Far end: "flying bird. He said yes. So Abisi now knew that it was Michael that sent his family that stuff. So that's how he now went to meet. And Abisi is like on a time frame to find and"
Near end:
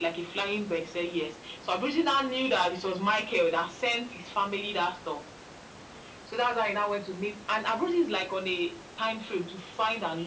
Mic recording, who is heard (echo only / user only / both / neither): echo only